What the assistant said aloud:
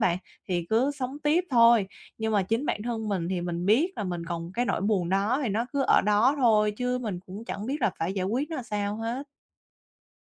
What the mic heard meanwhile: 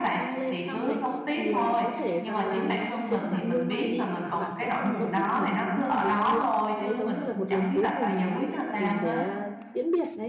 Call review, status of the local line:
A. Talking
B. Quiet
A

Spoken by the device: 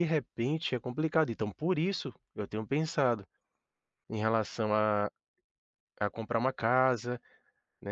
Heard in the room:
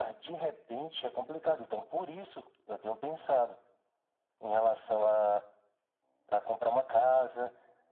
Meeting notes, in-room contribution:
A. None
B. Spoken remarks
A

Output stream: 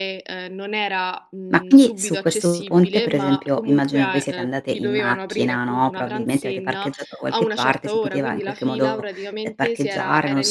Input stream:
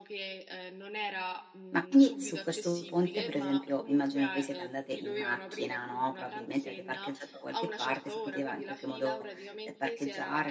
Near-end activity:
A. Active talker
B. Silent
B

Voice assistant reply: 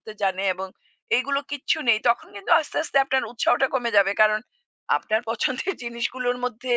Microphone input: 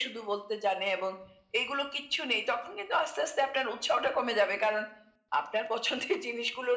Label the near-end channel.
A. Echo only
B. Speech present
A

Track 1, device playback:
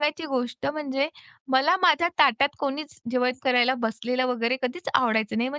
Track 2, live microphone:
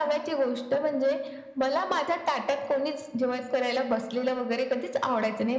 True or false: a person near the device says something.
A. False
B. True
A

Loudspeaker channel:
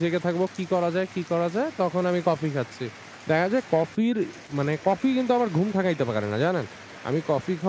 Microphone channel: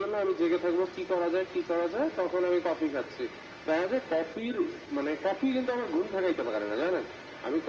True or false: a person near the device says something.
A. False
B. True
A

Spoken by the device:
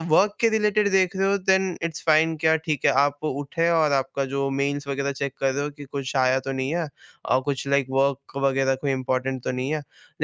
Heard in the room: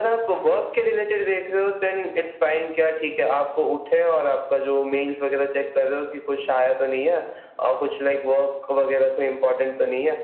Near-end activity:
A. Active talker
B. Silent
B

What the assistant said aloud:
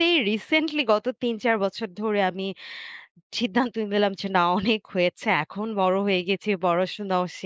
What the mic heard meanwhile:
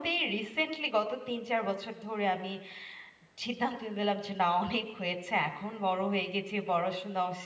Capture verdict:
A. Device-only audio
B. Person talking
A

